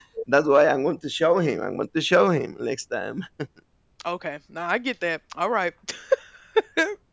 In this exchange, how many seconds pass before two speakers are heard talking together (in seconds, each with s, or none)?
none